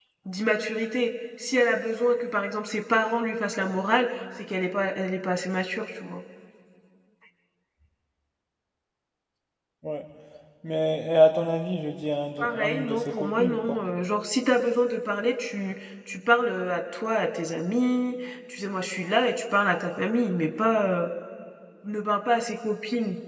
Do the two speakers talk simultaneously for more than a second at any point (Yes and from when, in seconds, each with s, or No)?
Yes, from 12.4 s